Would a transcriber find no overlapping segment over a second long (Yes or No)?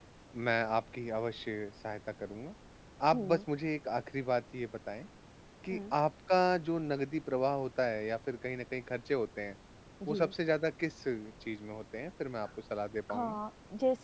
Yes